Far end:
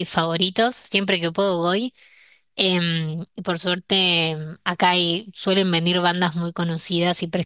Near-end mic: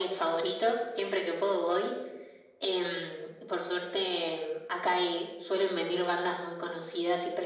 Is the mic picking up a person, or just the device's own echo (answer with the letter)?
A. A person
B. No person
B